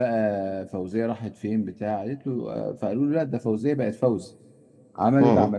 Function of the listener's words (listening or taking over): listening